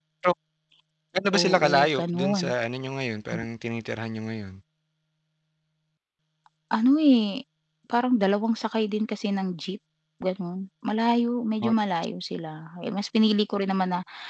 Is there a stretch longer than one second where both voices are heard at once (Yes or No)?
Yes